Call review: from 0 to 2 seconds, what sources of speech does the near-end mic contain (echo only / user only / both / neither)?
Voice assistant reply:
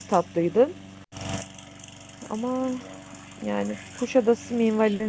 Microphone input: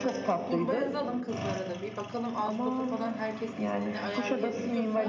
both